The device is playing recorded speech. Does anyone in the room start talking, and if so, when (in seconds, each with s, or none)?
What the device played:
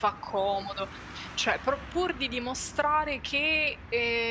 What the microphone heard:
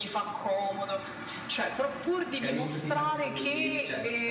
2.4 s